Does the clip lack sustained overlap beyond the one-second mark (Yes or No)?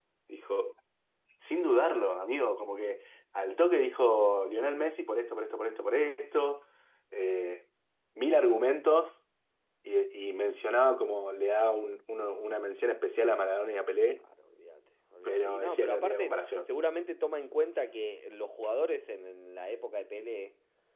No